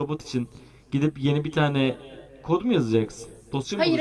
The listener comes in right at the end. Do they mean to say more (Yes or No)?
Yes